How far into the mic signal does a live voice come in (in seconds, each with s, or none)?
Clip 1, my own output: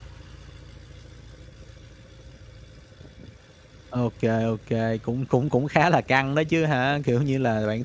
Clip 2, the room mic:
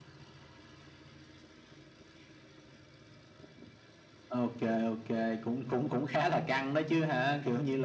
none